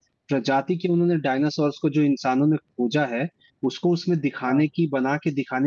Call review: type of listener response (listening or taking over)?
listening